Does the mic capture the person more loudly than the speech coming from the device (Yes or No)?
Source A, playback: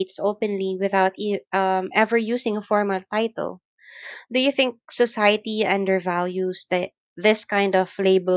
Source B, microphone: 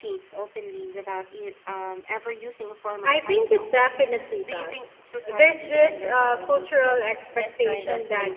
Yes